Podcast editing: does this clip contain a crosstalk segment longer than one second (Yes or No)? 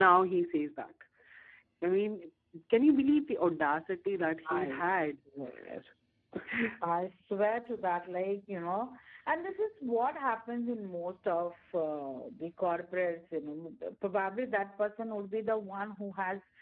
No